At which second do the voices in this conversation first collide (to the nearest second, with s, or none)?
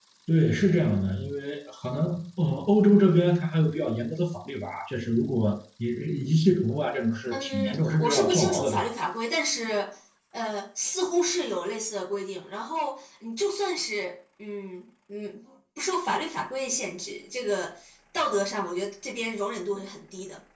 7 s